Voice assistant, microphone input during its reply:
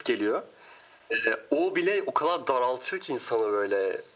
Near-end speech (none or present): none